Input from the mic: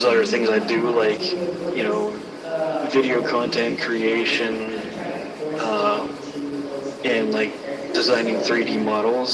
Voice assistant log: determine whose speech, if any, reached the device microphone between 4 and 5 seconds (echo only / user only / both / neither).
both